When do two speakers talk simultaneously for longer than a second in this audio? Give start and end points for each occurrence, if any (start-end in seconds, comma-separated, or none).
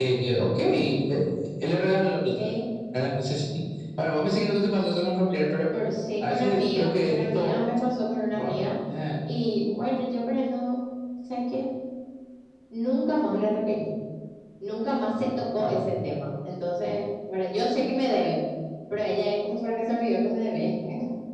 6.3-7.5